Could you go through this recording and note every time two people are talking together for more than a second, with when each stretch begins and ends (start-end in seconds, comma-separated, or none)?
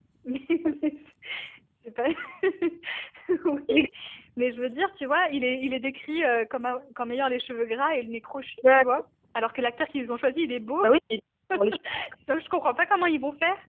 none